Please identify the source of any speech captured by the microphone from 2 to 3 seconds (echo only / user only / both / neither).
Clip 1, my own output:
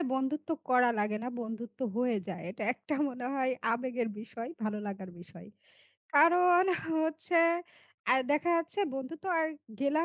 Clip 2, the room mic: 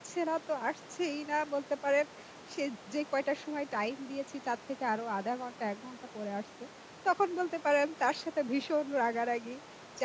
user only